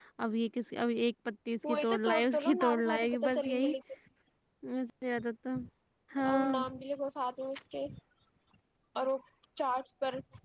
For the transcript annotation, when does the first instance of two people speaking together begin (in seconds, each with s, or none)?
1.7 s